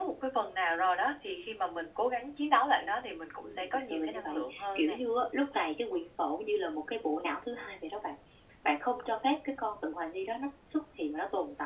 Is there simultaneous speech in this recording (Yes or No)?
Yes